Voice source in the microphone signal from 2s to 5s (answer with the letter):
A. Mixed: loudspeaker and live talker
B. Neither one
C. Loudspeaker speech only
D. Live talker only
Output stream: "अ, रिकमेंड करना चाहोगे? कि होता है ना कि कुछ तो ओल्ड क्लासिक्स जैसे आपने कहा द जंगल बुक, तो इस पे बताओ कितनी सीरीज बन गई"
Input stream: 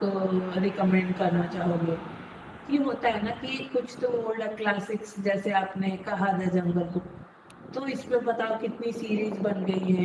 C